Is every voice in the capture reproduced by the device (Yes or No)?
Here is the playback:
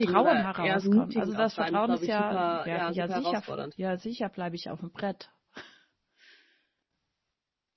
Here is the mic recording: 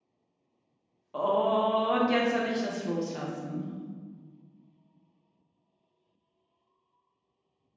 No